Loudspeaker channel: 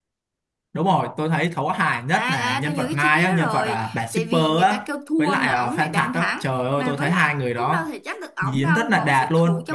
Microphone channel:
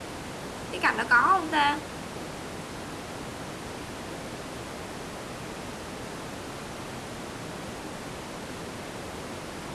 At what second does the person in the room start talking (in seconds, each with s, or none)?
0.7 s